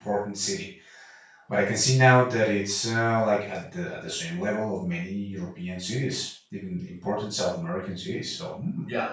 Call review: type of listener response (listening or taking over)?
taking over